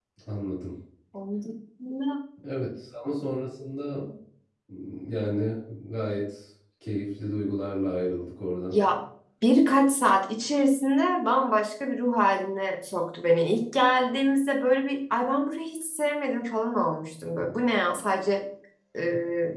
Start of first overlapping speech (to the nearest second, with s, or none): none